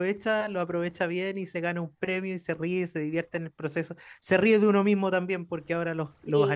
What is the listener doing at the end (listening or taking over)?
listening